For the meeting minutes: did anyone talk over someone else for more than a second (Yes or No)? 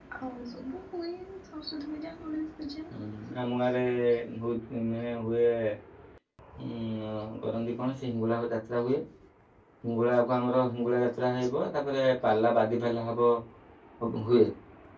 No